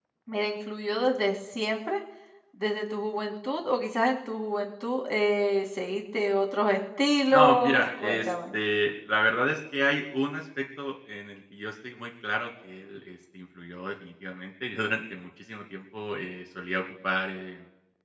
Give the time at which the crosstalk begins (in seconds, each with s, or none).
7.3 s